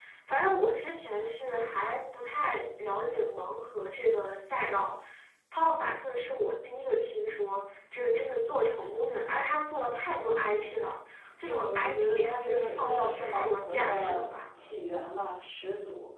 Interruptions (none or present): present